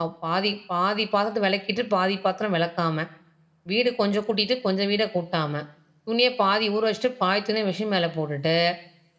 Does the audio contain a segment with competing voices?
No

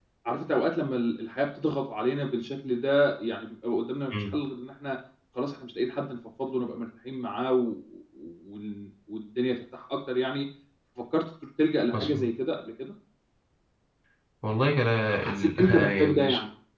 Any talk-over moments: Yes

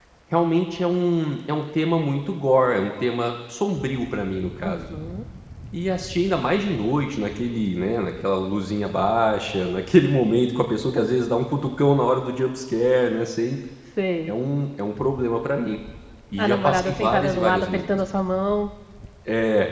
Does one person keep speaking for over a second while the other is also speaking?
Yes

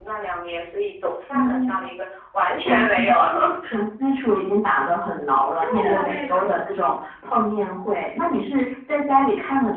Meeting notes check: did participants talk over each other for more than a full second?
Yes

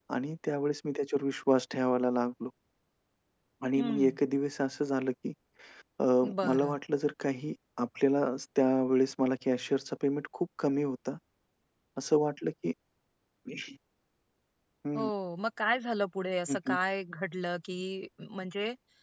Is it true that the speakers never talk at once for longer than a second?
Yes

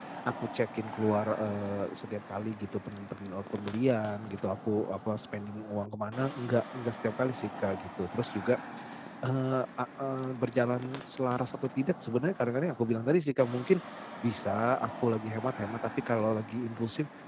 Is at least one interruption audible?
No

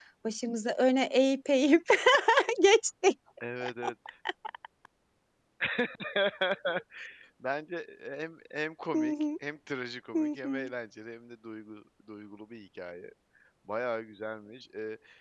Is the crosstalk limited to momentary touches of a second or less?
Yes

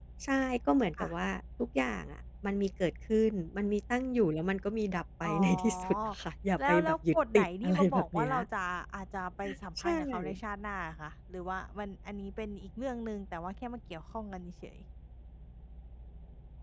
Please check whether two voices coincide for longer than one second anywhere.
Yes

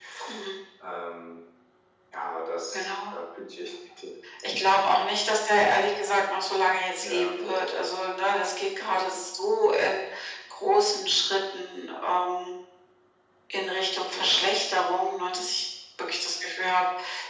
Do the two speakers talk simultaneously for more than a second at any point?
No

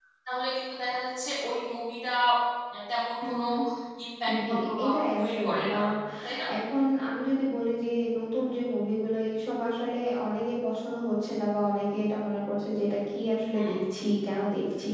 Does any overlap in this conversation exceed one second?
Yes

